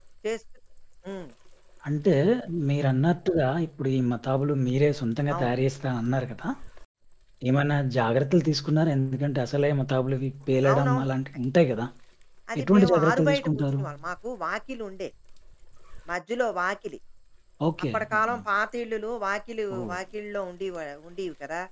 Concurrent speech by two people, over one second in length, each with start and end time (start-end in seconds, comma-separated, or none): 12.6-13.8